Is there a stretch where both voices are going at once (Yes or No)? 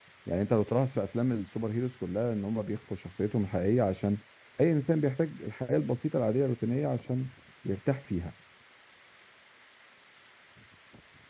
No